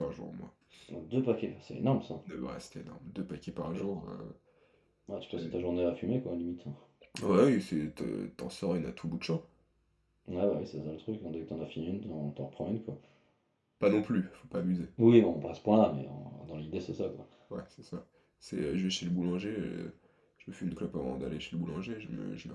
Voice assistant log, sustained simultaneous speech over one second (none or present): none